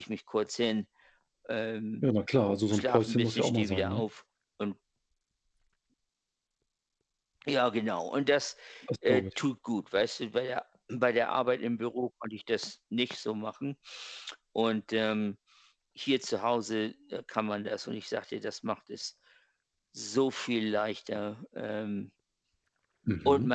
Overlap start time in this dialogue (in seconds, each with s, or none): 2.7 s